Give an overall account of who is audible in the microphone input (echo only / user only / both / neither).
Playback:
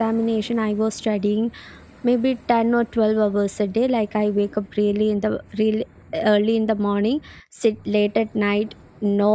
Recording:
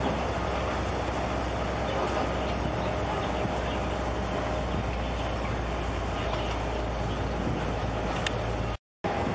neither